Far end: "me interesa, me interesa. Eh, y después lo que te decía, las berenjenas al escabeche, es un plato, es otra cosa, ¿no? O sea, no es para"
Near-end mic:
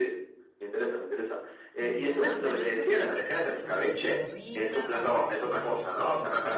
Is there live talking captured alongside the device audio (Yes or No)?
Yes